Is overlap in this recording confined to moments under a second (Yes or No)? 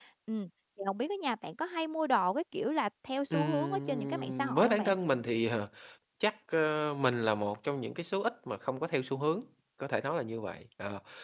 No